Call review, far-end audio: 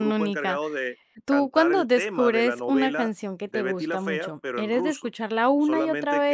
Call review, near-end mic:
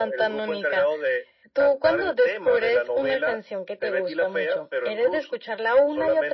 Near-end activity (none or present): none